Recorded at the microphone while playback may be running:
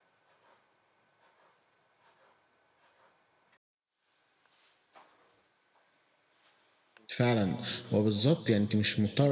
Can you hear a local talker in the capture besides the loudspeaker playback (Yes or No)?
Yes